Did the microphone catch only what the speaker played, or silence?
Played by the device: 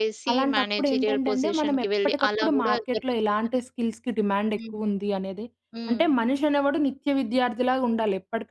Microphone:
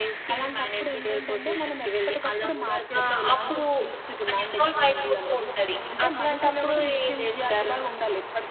No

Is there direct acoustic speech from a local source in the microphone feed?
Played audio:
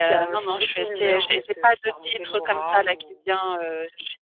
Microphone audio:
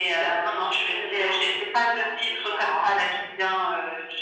No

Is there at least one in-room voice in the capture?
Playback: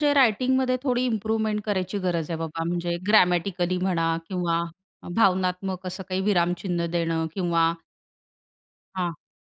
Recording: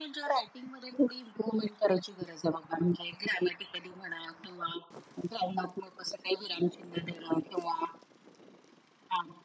No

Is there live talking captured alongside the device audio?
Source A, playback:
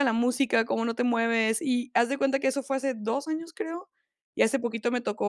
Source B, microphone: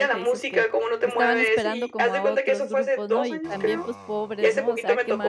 Yes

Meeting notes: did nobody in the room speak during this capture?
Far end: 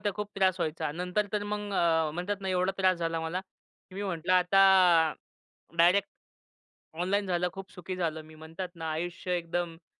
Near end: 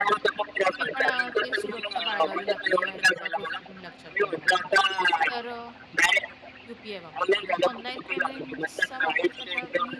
No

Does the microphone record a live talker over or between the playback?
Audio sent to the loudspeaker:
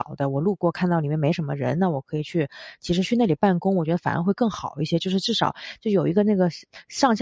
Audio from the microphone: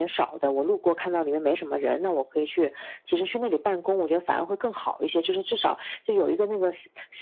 No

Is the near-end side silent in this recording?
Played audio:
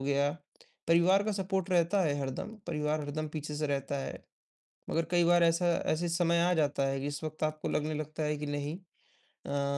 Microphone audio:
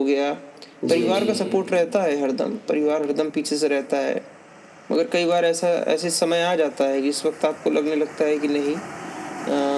No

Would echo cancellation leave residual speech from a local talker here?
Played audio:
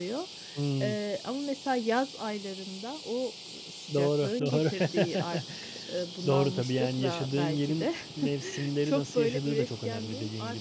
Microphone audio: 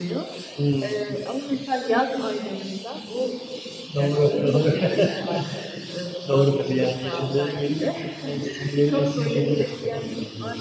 No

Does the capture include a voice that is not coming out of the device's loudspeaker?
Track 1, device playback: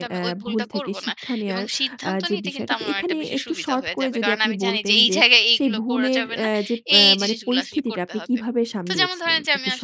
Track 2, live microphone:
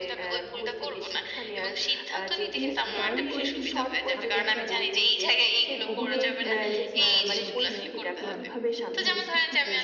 Yes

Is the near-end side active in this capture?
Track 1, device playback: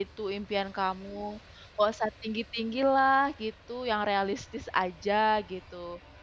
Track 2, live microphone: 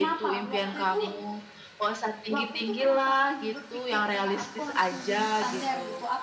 Yes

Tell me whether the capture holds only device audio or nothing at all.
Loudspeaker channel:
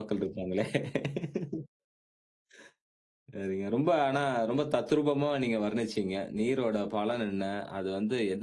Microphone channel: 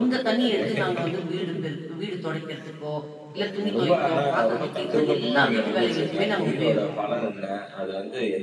No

